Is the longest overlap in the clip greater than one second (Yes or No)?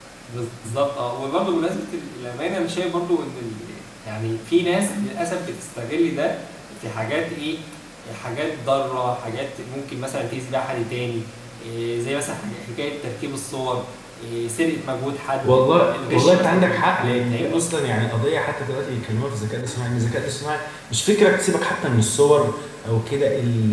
Yes